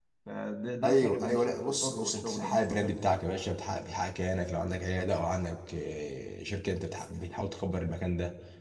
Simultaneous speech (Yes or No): Yes